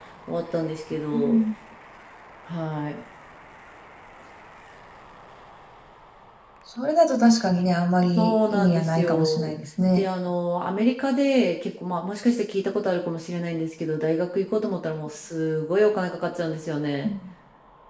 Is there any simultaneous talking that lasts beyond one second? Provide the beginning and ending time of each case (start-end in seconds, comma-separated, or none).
8.2-9.6